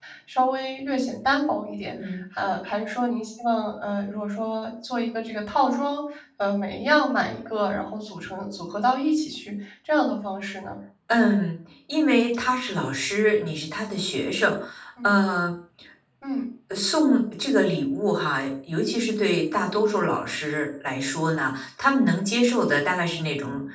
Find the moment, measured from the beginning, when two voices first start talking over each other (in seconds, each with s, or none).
none